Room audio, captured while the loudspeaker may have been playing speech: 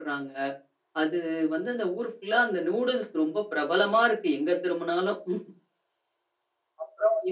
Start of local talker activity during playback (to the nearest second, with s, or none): none